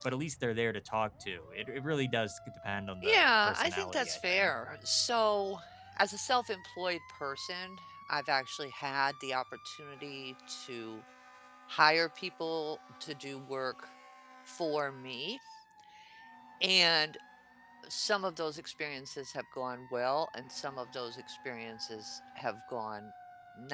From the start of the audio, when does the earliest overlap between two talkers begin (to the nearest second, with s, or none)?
3 s